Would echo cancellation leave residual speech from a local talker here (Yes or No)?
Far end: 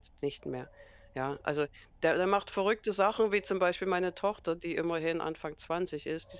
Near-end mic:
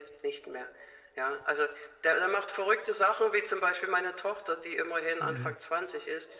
Yes